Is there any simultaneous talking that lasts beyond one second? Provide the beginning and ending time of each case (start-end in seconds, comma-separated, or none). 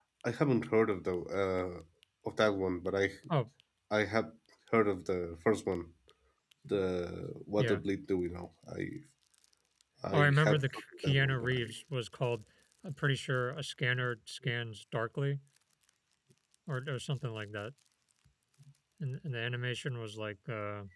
10.1-11.6